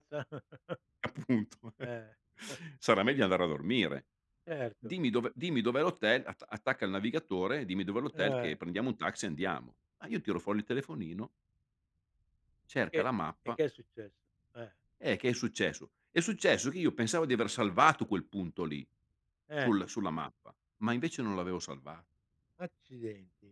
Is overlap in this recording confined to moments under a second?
Yes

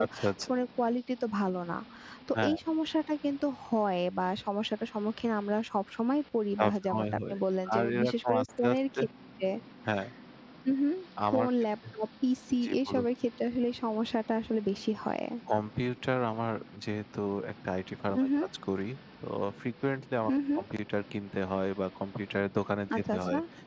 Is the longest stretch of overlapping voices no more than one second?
No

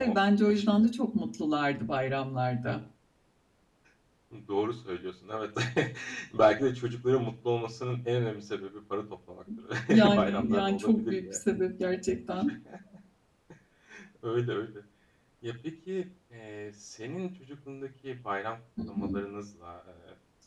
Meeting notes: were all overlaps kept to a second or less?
No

